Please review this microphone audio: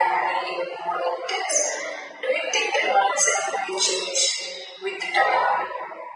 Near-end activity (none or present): none